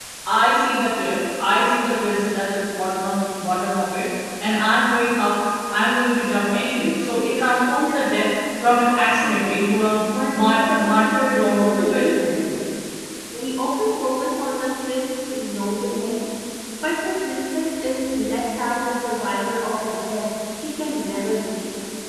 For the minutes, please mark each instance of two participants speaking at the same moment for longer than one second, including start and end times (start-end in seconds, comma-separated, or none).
10.3-12.1